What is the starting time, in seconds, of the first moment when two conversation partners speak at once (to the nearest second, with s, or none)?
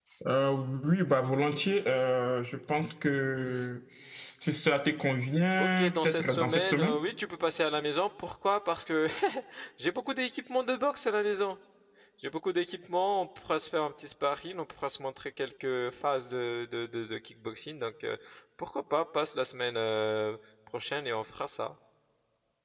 6 s